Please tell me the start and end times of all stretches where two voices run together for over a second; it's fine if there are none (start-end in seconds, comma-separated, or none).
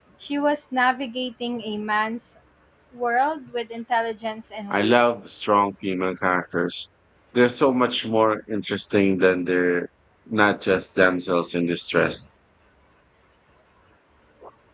none